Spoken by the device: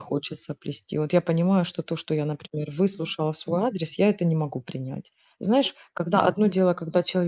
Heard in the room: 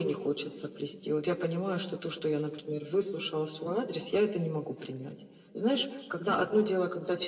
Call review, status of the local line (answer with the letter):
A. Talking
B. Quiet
B